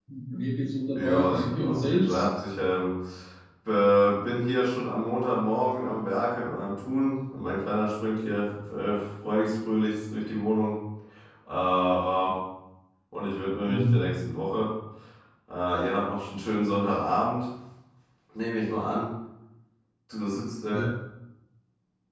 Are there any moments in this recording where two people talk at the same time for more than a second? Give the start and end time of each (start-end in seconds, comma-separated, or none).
0.9-2.3